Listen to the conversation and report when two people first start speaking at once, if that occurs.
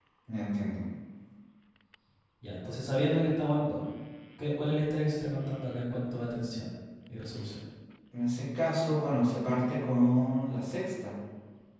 none

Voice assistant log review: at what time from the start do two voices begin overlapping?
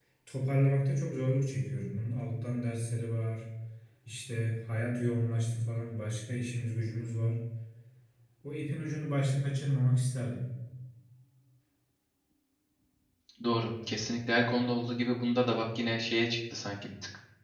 none

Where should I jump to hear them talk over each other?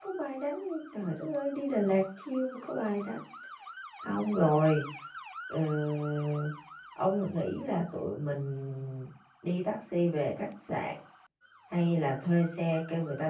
none

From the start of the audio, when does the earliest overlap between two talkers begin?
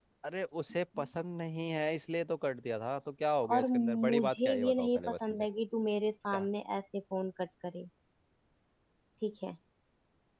3.5 s

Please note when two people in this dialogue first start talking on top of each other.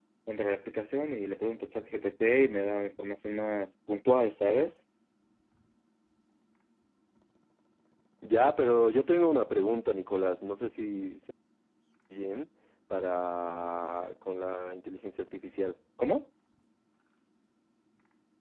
none

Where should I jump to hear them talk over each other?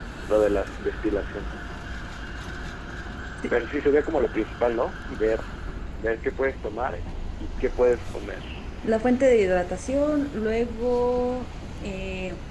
none

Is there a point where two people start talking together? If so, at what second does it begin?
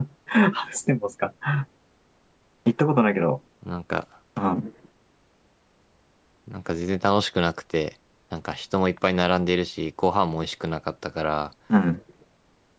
none

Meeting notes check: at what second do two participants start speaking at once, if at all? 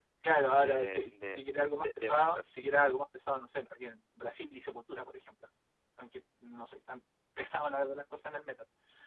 0.6 s

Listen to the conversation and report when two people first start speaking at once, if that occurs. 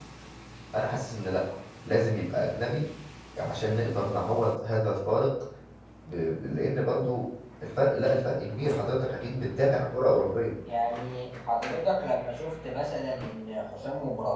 none

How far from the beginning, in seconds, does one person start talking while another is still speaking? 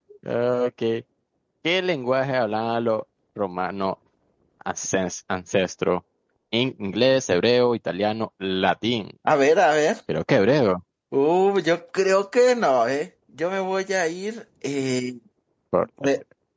none

